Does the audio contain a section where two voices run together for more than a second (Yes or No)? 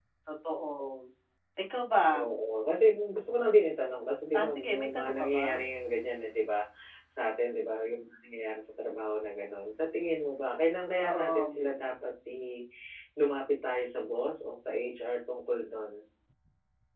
Yes